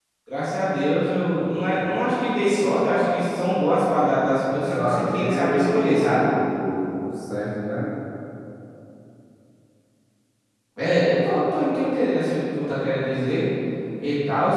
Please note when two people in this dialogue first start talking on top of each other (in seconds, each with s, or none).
4.5 s